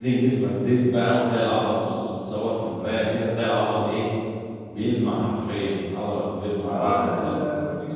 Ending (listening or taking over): taking over